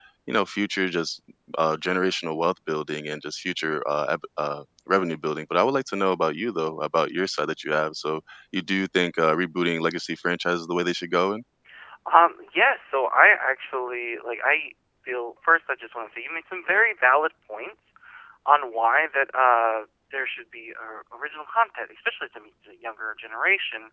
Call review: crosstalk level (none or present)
none